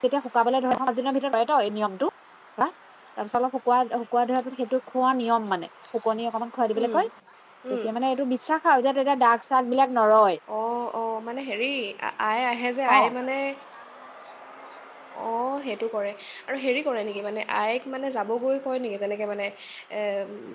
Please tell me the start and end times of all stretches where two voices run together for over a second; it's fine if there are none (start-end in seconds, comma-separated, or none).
none